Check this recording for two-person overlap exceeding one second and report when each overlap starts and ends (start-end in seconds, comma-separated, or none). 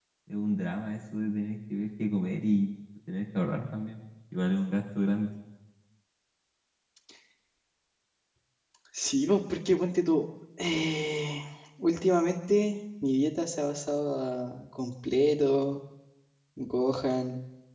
none